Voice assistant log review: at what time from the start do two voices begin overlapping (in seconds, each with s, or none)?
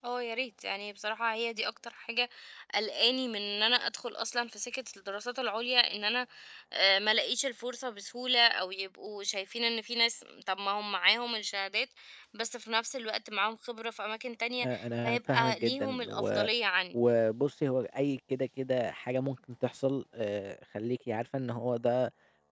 14.6 s